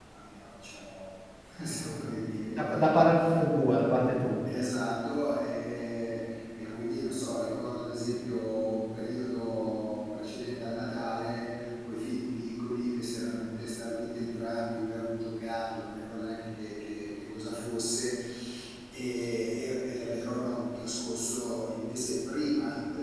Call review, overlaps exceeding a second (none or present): none